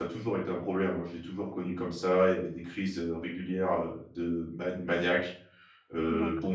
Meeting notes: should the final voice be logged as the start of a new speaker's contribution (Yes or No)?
No